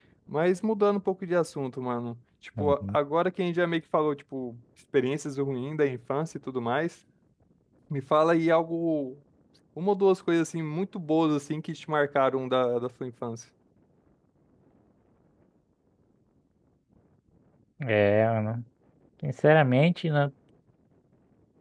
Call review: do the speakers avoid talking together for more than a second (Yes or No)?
Yes